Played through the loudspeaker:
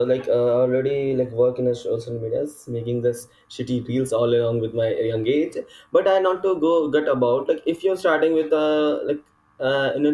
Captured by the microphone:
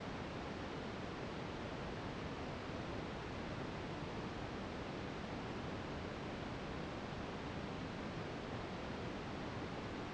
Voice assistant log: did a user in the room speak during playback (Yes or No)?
No